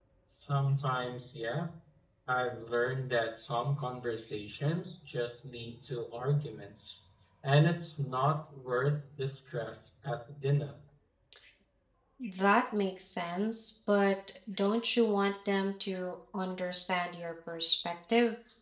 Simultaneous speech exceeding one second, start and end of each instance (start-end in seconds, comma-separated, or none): none